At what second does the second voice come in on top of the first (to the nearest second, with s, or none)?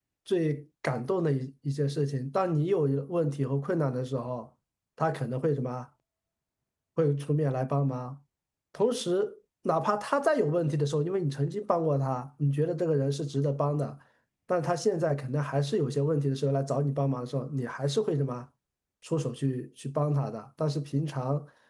none